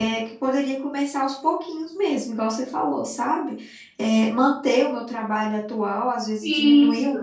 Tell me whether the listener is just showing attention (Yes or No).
Yes